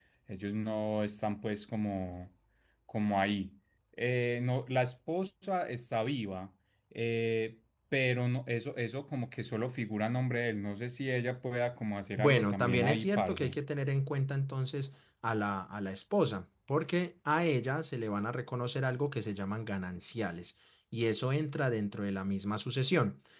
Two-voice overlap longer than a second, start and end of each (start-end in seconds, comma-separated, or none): 12.2-13.6